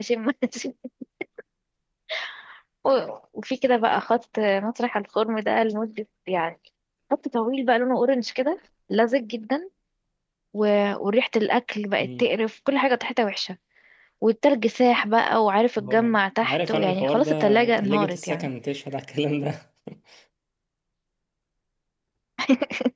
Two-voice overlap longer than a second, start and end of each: 15.8-18.5

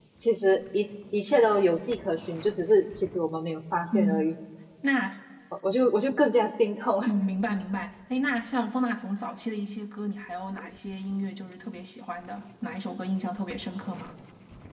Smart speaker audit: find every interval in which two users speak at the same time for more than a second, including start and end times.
none

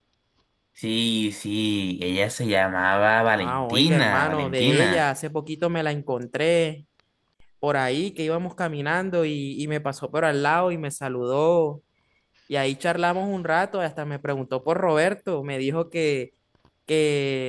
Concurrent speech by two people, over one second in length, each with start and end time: 3.3-5.0

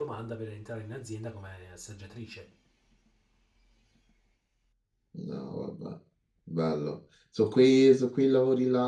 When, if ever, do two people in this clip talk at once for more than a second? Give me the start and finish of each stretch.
none

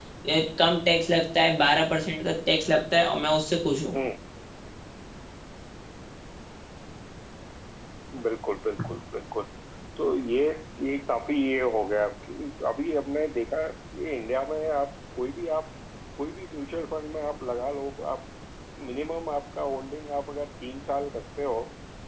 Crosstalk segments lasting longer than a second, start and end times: none

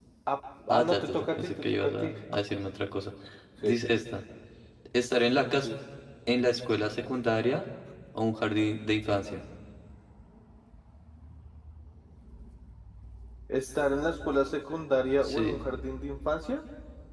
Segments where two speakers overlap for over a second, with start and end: 0.7-2.1

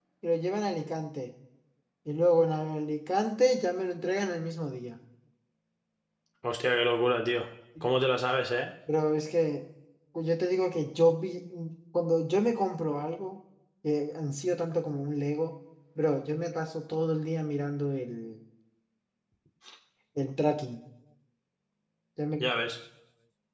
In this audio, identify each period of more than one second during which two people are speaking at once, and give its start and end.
none

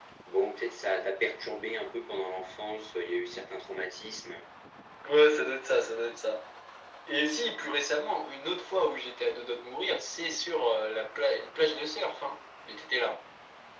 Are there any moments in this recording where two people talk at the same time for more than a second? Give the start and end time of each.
none

